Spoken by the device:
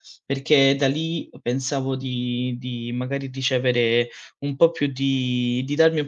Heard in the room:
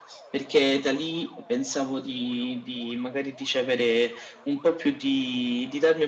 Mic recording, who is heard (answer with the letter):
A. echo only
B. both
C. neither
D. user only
A